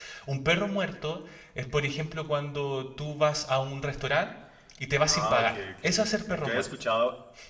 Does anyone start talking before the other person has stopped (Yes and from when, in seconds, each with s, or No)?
Yes, from 5.1 s